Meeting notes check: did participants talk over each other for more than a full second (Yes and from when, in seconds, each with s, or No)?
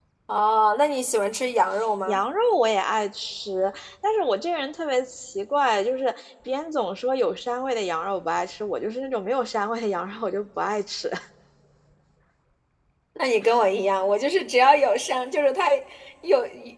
No